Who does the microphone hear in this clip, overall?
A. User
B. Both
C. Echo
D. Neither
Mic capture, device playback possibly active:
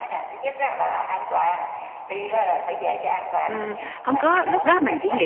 B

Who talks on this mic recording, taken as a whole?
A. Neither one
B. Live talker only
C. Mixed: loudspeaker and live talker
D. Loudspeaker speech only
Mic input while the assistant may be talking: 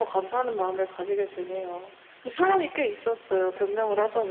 D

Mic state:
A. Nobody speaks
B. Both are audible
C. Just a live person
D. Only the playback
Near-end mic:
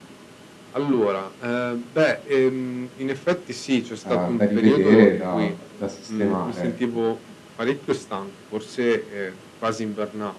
B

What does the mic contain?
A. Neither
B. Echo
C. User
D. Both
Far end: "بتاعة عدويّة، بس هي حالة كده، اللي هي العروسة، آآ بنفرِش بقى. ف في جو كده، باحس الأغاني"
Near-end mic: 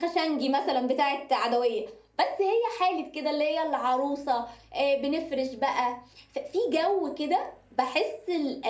B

